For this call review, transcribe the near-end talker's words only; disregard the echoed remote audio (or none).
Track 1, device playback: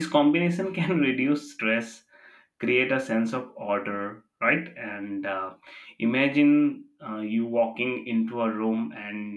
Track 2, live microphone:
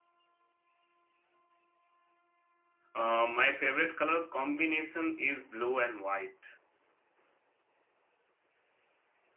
uh, my favorite color combination is blue and white.